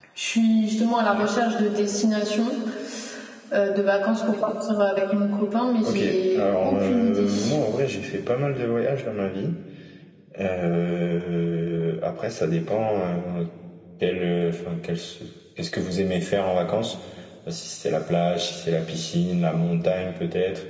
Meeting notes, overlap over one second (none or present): present